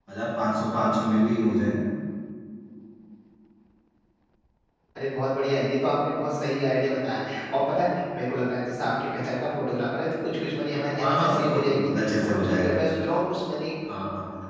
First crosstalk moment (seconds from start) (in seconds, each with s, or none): 10.9 s